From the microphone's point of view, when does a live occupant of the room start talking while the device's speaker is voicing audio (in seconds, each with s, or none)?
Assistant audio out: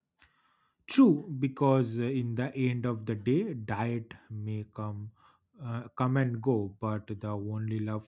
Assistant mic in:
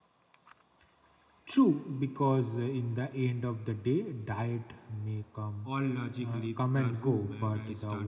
5.6 s